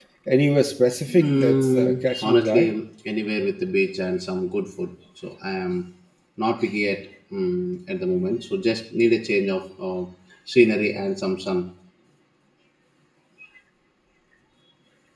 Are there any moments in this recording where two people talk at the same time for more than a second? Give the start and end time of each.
1.1-2.7

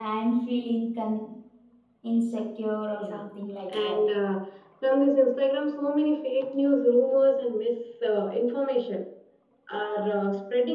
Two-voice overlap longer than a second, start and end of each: none

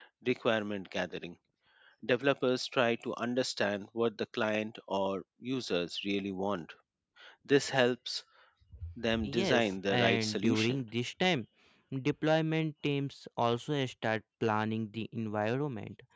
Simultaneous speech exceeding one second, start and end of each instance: 9.2-10.8

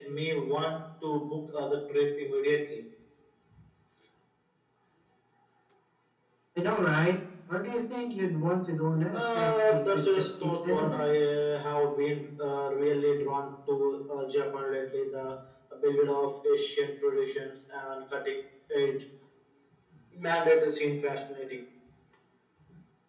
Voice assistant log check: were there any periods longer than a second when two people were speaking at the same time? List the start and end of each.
9.1-11.1

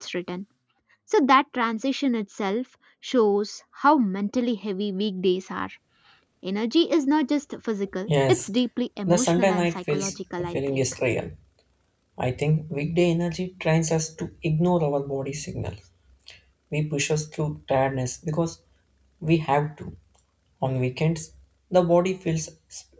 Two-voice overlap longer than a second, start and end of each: 9.1-10.8

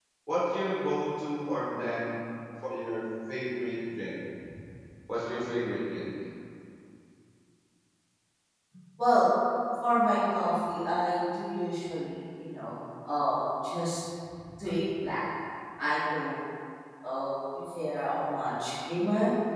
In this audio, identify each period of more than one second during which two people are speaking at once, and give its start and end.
none

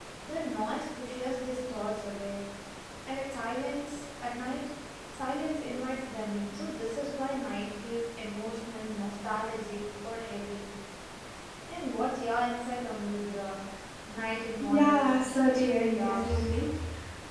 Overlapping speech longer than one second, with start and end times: 14.6-16.4

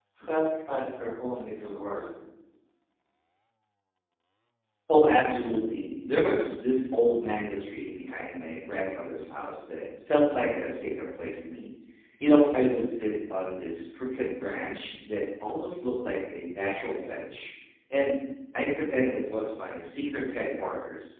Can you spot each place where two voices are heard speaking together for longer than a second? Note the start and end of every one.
none

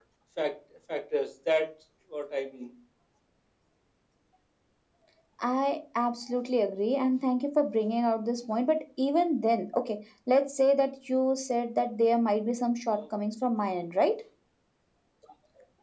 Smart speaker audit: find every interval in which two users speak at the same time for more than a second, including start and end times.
none

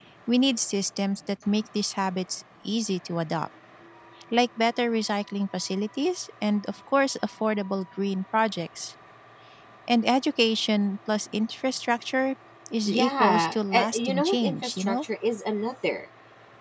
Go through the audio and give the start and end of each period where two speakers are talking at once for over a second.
12.9-15.0

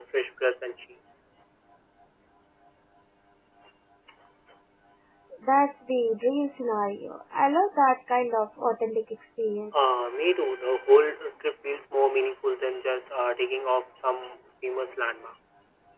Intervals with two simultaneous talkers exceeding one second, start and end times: none

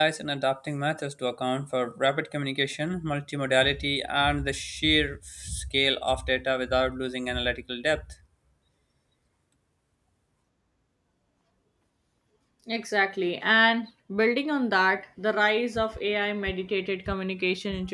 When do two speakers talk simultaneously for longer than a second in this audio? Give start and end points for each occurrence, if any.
none

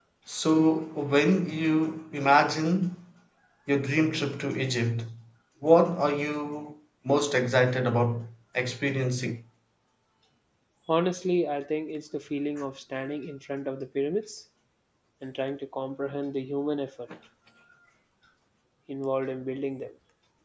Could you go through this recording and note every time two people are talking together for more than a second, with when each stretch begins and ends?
none

